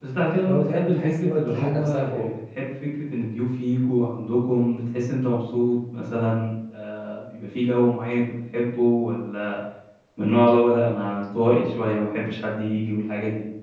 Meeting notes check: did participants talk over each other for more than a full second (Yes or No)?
Yes